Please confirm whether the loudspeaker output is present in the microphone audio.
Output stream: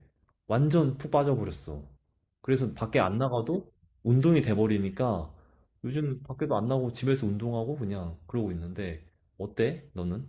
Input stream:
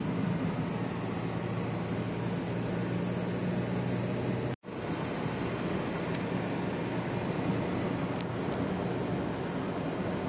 No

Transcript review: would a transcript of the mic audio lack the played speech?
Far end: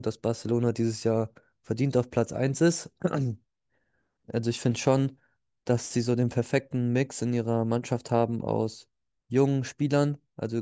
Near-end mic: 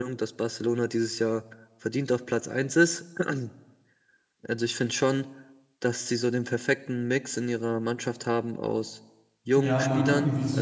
No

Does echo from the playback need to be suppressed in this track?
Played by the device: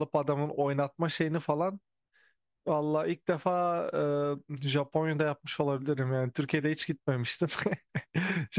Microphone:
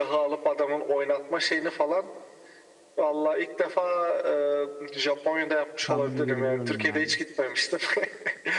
Yes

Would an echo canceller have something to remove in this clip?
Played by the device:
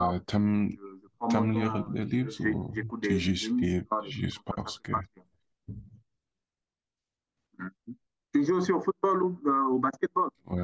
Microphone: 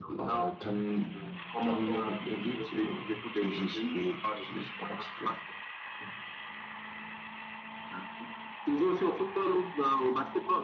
Yes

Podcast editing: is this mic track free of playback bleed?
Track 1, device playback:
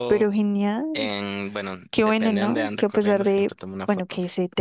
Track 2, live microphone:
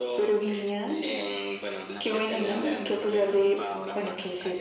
No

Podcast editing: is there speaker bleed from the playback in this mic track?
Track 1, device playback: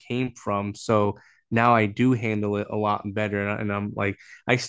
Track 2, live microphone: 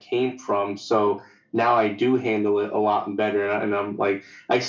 Yes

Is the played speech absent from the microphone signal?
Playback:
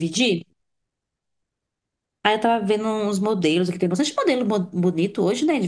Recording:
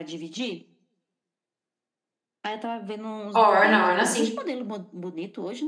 No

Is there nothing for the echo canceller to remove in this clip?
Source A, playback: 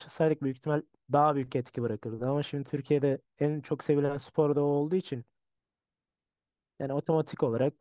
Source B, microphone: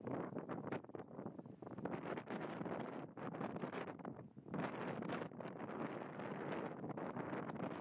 Yes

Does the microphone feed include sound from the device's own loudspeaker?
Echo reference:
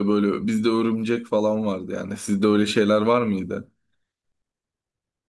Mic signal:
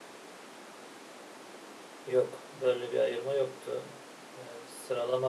No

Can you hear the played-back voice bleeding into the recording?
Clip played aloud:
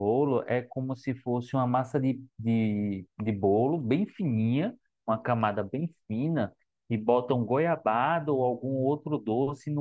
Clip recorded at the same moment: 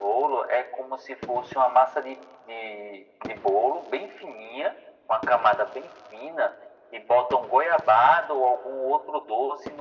Yes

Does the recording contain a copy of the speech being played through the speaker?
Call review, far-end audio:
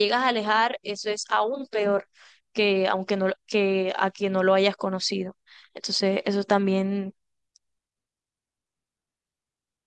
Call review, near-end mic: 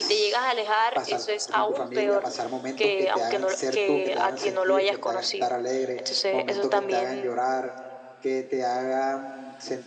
Yes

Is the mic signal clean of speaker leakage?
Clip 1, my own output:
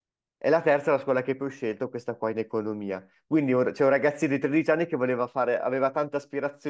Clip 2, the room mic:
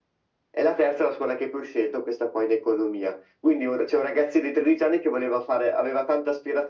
No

